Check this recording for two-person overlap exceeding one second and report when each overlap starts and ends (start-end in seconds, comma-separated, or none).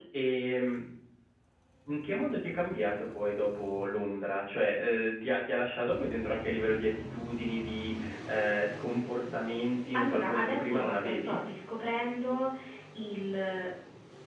9.9-11.4